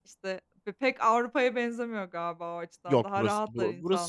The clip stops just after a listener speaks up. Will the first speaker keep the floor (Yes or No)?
No